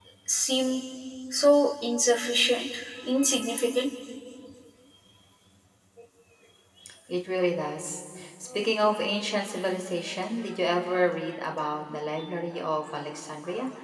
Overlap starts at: none

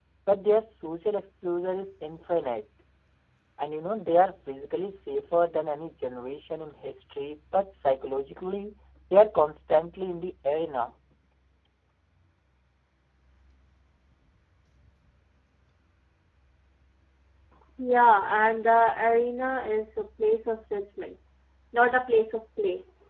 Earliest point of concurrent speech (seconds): none

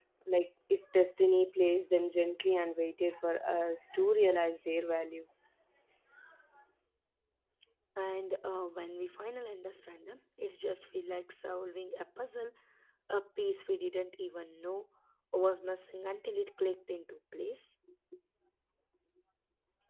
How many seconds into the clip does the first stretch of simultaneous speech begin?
none

